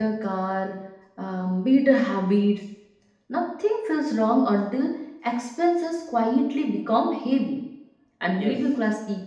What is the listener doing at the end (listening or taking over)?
listening